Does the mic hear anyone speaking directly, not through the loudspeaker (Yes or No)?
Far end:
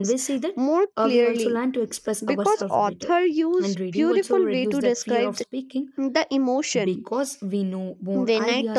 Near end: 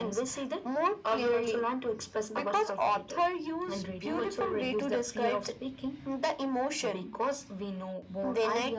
No